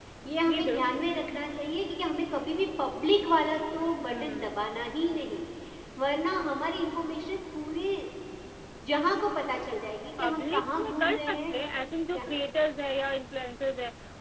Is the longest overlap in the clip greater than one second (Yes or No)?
Yes